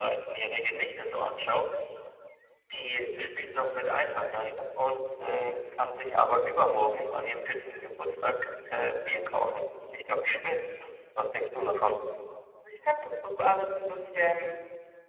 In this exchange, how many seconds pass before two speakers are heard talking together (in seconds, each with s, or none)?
none